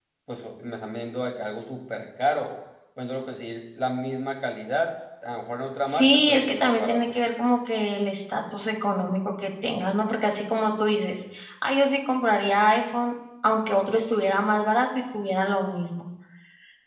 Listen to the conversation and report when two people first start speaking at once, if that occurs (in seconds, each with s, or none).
5.9 s